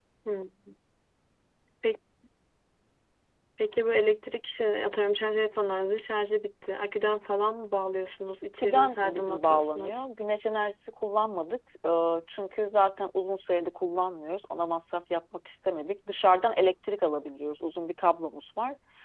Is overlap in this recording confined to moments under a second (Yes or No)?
No